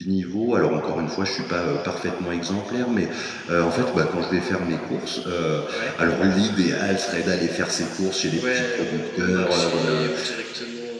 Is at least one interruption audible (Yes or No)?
Yes